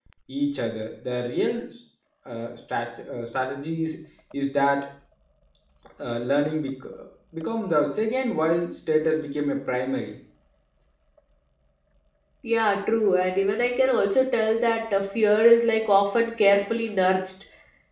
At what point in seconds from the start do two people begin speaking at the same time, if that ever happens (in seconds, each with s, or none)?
none